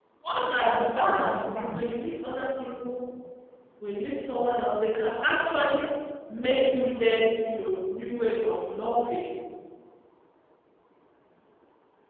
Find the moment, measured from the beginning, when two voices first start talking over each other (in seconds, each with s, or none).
0.6 s